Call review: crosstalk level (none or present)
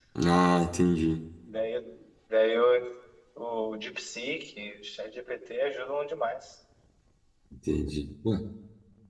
none